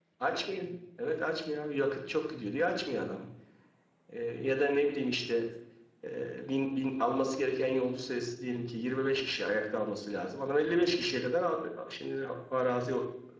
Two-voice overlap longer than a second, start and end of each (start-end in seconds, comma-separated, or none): none